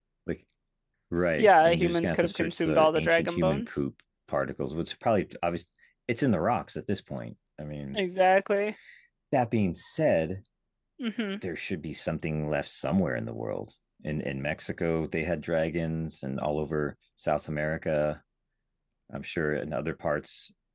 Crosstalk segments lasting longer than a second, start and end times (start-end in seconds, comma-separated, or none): 1.4-3.8